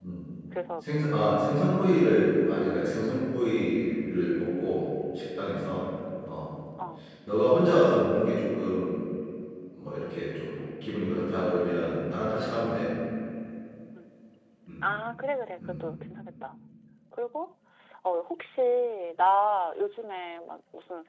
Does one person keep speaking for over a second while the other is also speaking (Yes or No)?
No